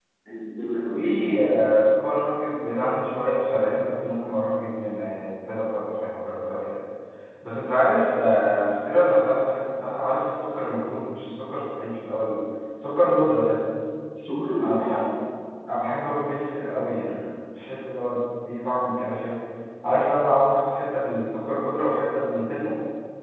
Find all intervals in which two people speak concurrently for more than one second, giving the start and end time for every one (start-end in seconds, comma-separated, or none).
none